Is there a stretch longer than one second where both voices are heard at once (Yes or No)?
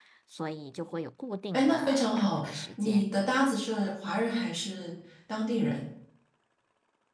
Yes